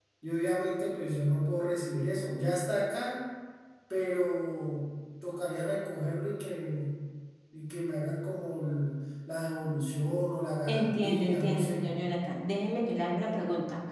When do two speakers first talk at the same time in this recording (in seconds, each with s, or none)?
10.7 s